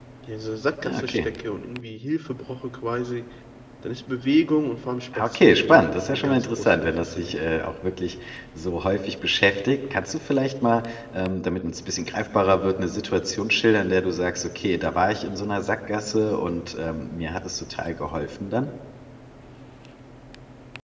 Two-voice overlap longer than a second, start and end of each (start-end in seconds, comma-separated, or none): 5.2-7.3